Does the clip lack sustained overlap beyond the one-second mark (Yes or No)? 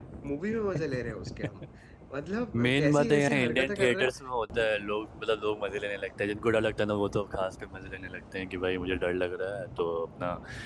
No